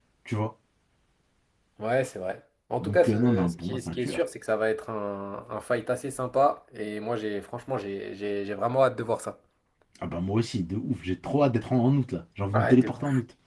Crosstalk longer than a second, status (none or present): present